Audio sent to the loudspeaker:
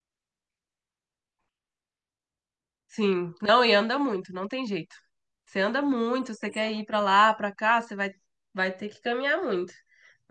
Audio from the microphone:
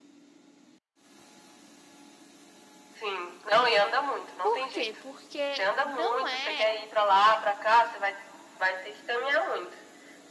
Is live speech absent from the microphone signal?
No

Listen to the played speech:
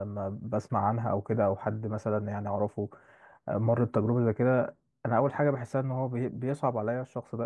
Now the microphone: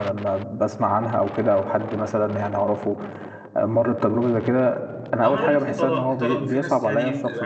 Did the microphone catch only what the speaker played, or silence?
No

